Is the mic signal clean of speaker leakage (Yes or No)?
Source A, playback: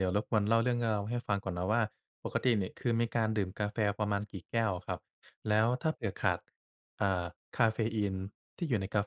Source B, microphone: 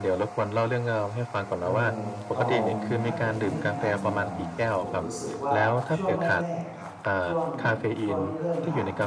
No